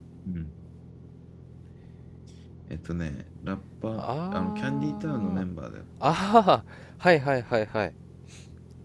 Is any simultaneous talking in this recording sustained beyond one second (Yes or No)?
Yes